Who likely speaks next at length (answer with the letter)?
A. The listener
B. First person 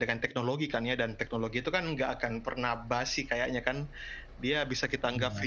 B